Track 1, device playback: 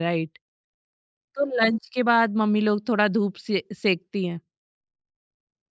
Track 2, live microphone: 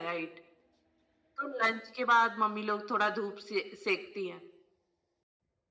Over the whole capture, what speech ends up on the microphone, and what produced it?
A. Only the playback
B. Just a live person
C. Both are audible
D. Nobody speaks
A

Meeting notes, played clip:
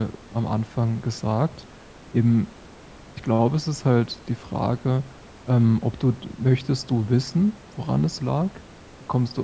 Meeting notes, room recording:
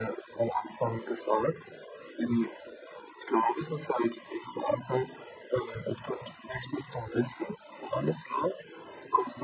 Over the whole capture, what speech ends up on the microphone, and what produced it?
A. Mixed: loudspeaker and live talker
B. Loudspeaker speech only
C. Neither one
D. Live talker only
B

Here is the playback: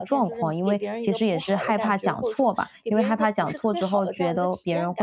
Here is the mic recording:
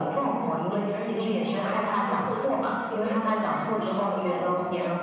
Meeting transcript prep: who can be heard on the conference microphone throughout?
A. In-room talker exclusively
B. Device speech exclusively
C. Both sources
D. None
B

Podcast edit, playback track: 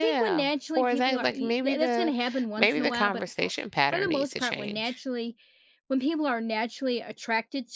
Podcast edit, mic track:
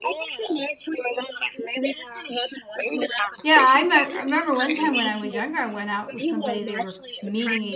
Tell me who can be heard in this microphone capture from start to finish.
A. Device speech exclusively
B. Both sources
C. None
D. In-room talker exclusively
B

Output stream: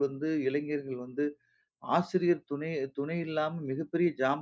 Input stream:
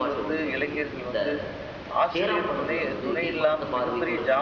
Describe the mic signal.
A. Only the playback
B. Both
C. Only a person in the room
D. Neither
B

